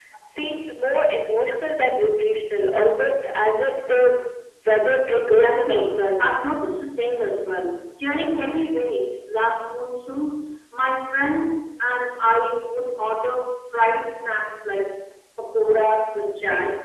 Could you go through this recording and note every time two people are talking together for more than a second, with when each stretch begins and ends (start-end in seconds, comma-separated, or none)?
5.1-6.4